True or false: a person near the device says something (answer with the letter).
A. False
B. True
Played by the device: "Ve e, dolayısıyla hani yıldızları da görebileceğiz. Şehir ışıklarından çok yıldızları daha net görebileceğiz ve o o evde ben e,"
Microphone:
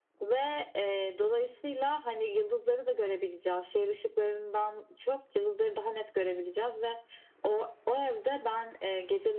A